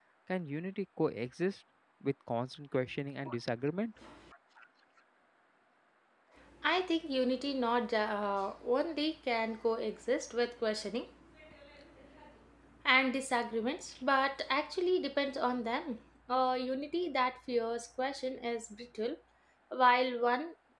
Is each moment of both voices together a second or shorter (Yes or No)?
Yes